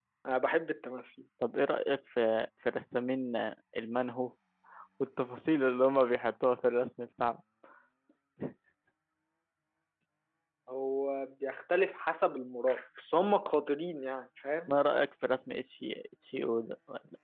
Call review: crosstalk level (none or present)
none